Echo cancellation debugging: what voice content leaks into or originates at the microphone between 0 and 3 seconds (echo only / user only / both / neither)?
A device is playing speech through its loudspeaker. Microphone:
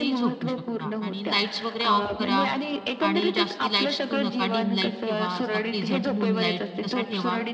both